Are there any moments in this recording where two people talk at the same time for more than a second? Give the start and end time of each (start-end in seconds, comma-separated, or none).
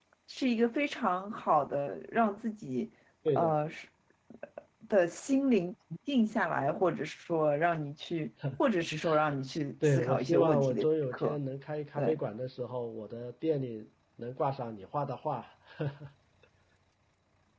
9.8-11.4